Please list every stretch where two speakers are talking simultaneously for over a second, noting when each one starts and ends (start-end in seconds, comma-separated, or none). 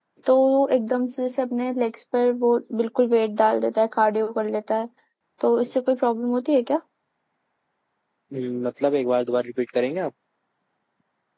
none